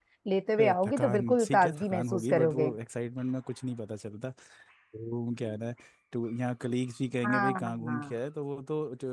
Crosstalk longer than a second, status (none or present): present